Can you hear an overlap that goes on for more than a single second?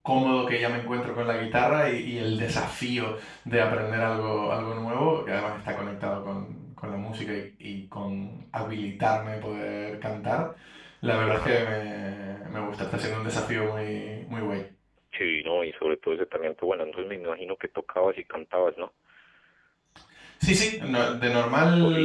No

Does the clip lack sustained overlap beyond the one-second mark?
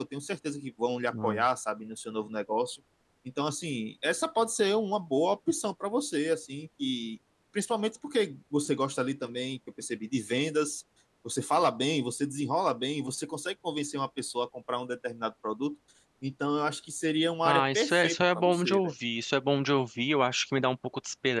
No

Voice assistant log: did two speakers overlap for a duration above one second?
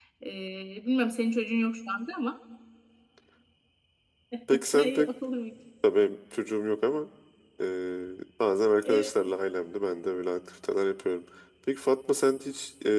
No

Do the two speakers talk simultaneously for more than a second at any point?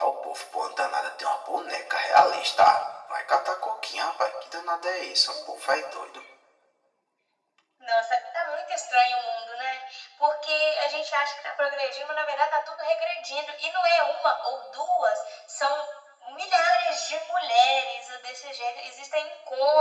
No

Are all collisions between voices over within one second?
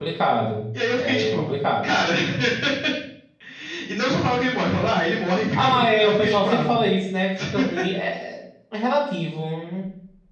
No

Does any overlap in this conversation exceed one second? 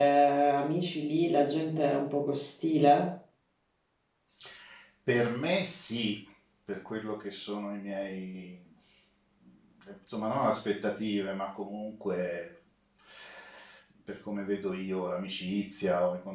No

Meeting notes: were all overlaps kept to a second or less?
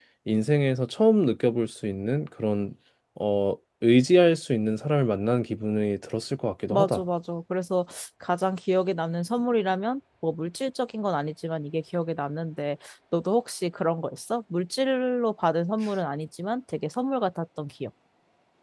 Yes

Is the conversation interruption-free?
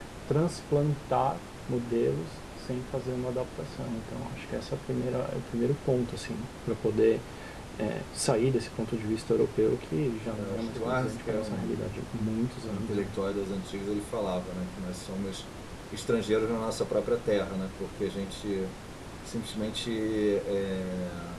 No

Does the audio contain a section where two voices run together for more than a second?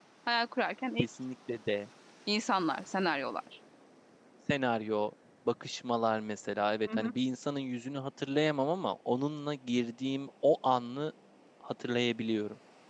No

